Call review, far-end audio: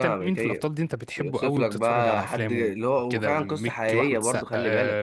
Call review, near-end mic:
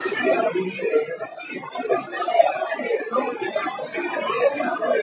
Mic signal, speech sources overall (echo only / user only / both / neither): echo only